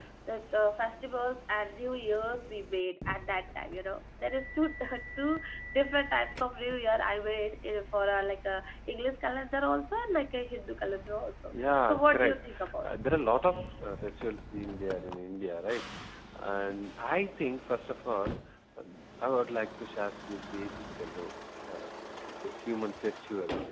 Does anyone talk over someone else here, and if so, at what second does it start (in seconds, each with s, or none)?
11.5 s